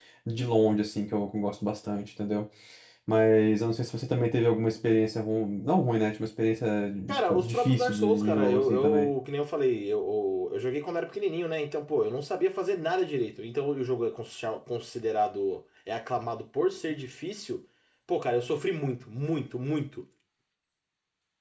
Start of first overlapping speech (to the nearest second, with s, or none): 7 s